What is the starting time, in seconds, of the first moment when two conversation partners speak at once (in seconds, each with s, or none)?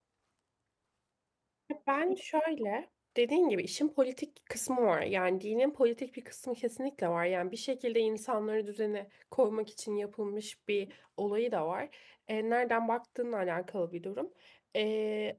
none